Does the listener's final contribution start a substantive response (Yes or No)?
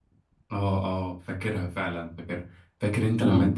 No